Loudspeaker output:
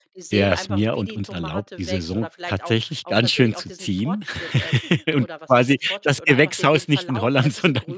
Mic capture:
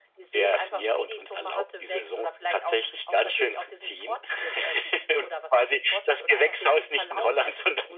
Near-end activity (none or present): none